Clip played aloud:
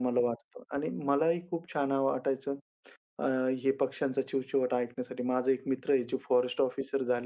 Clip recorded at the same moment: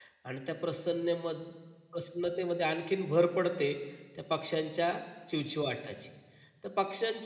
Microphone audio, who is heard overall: user only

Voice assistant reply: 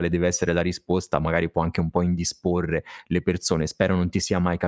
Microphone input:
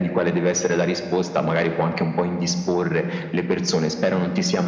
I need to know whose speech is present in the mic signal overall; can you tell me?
echo only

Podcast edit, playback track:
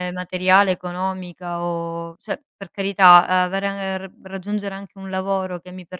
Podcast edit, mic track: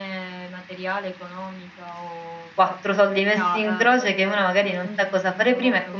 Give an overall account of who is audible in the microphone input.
both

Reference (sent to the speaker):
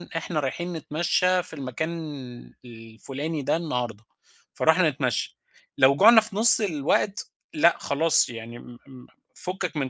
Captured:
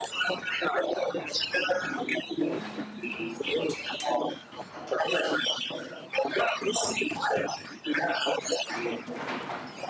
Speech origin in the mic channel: echo only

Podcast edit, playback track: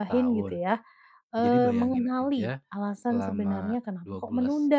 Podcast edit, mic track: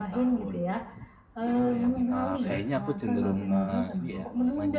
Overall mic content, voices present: both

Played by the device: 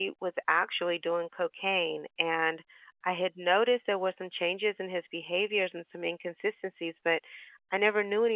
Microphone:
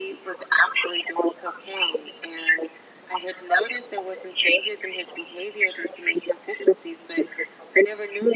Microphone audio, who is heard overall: echo only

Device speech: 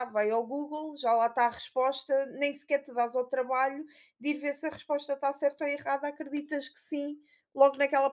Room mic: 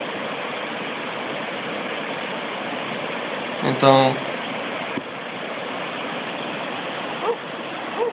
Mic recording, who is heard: user only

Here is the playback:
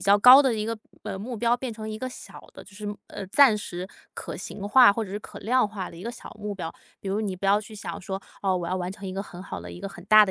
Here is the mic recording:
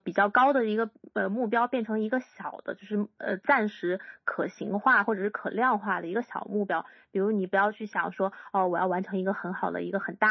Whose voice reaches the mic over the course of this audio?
echo only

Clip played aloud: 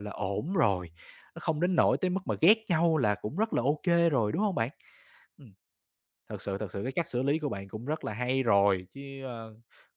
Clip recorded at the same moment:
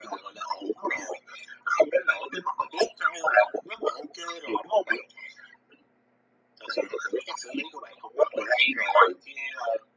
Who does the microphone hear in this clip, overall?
echo only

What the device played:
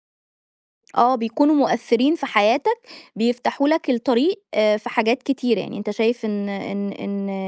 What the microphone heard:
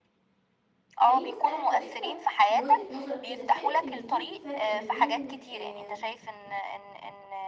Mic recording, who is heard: both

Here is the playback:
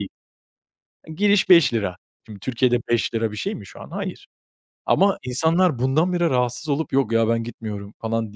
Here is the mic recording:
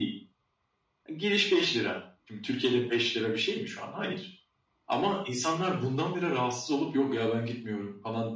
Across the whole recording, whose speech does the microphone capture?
echo only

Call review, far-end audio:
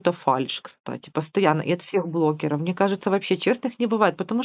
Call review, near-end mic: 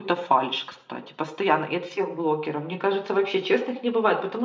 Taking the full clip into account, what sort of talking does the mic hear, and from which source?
echo only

